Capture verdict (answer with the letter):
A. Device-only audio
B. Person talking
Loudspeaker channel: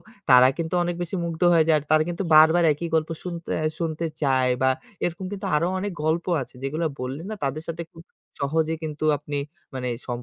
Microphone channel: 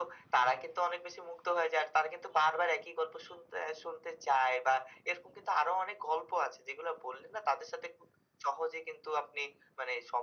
A